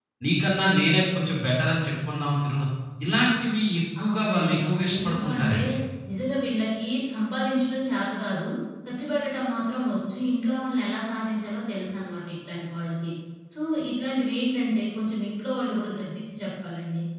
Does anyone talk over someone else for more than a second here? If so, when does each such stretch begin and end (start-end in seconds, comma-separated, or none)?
4.1-5.6